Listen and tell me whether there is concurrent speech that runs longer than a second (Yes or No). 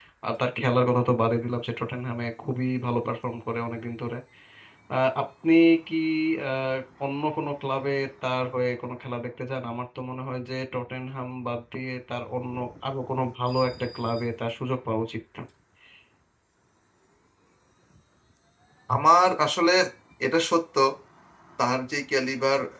No